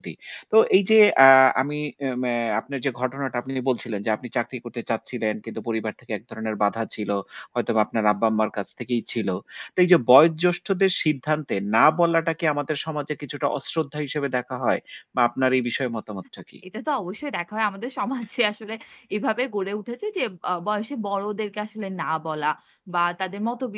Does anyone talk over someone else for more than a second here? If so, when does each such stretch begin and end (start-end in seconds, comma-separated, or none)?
none